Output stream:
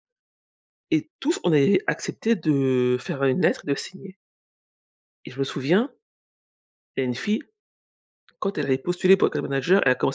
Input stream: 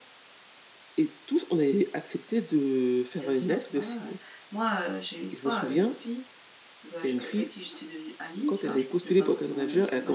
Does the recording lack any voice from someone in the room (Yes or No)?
No